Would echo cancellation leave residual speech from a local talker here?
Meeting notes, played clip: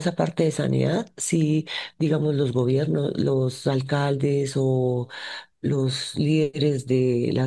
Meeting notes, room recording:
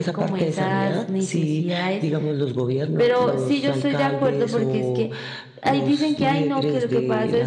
Yes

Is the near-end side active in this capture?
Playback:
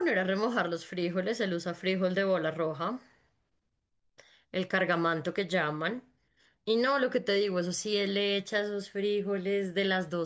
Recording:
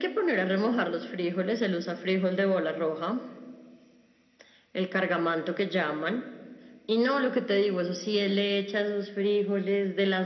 No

